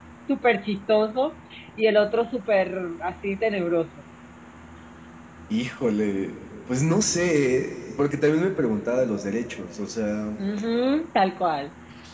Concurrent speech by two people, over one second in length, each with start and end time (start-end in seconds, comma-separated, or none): none